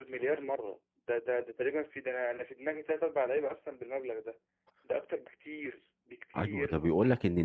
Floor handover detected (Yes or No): Yes